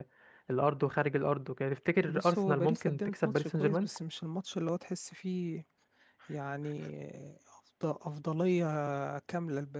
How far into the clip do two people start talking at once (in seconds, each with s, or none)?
2.1 s